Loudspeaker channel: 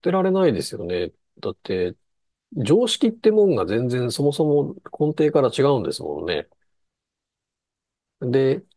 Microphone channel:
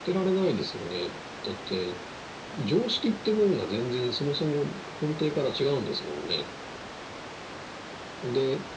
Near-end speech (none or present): none